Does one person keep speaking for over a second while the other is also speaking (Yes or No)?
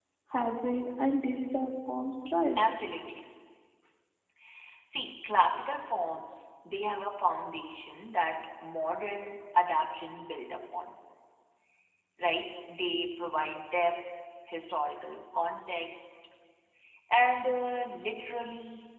No